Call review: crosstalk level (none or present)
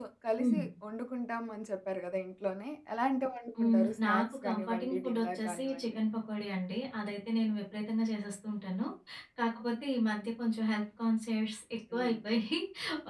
present